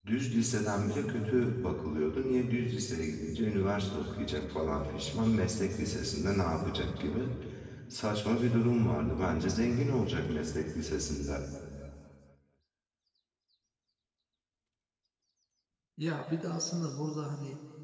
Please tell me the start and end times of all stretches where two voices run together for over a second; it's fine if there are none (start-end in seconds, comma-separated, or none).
none